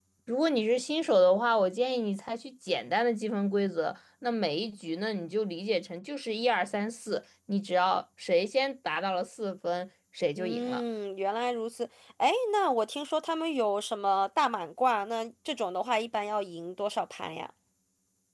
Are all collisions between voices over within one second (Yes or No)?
Yes